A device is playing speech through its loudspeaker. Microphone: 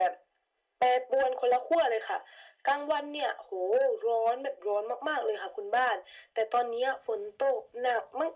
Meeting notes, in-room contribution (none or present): none